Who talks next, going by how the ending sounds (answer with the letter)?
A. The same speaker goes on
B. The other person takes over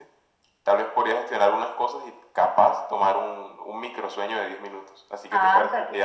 B